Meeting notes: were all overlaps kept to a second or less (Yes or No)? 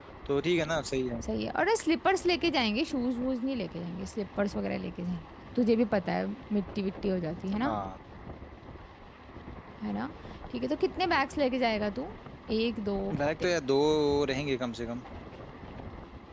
Yes